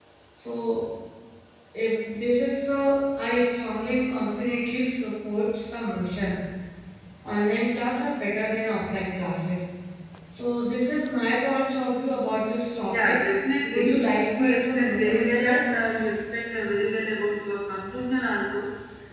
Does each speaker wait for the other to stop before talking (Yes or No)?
No